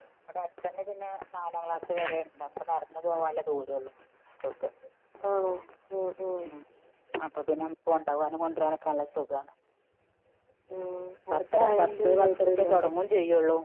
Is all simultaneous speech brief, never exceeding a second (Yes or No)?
No